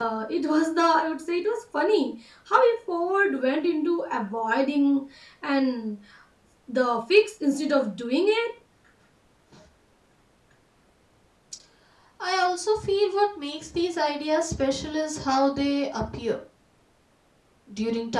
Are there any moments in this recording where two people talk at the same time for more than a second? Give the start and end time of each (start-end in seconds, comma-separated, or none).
none